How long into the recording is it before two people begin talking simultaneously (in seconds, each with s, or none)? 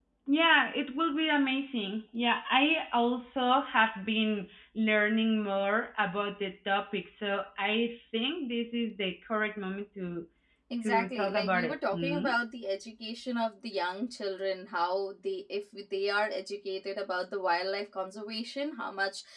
10.8 s